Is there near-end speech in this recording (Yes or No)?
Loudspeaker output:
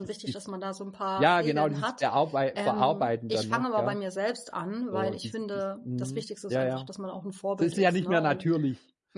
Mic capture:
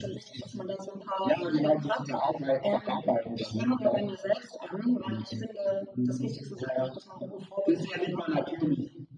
No